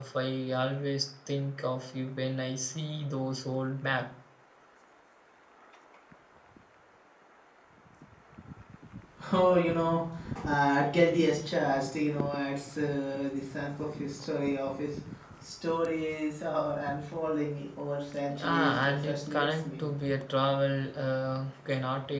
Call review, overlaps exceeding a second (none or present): present